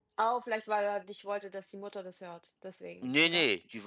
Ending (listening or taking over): taking over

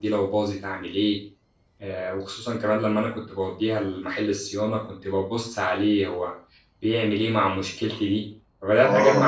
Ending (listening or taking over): taking over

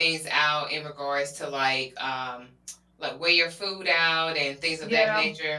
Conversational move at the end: taking over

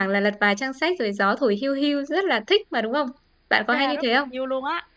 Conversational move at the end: taking over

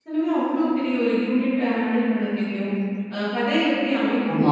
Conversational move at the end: listening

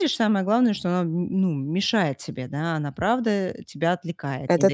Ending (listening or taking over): listening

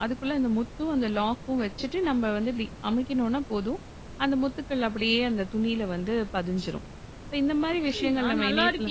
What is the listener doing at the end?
taking over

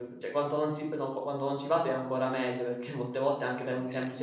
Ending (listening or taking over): listening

